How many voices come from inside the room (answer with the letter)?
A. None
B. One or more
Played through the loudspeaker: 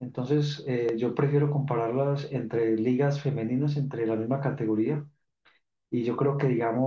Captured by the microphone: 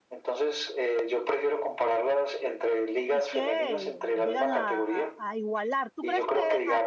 B